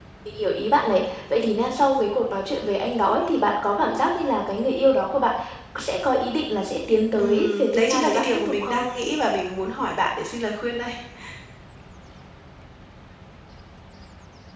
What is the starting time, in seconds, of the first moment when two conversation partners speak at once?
7.2 s

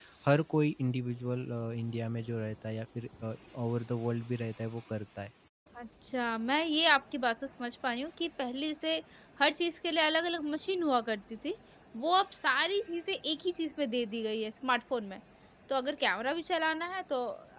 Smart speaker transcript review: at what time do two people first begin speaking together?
none

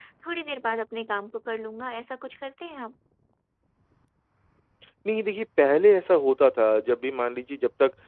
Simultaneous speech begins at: none

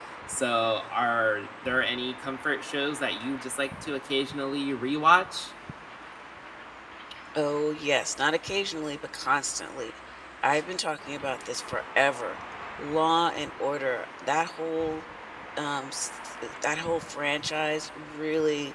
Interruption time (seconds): none

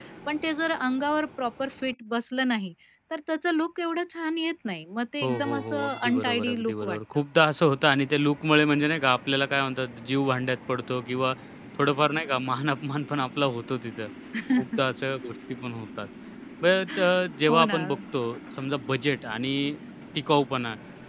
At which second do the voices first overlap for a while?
5.2 s

